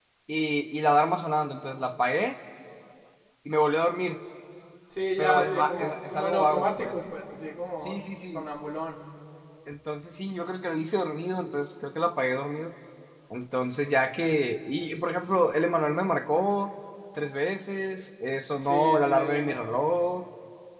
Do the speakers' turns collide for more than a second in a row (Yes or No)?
Yes